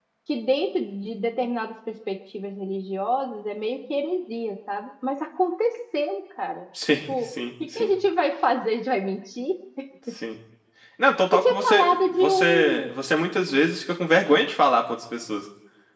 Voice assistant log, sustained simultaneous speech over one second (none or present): present